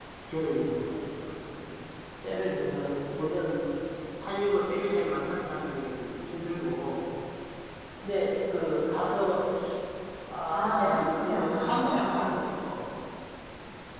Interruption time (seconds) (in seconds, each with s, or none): 10.5 s